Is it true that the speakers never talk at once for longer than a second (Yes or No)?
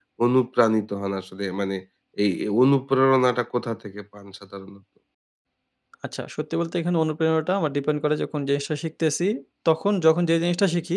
Yes